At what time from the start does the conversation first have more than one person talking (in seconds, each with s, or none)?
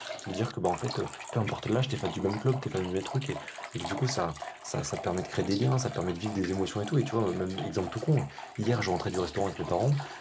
none